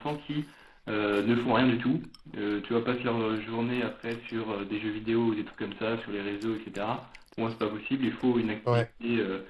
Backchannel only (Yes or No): Yes